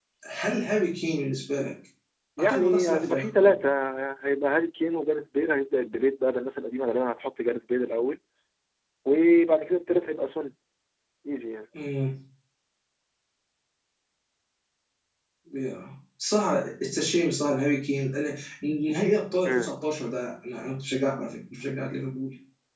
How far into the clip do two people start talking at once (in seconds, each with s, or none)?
2.4 s